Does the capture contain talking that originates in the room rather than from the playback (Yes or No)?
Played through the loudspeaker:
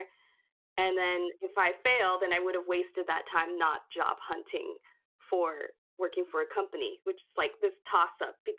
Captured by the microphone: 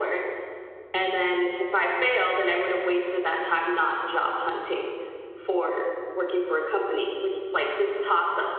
No